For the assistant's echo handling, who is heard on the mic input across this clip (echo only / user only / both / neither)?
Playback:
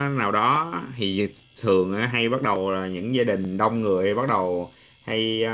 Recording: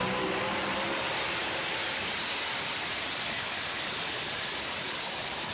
neither